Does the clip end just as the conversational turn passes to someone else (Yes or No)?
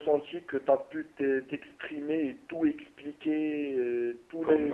No